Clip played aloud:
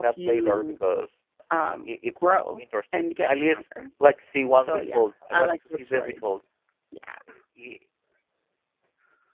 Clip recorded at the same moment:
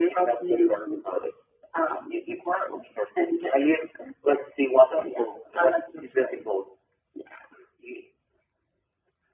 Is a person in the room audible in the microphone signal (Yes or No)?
No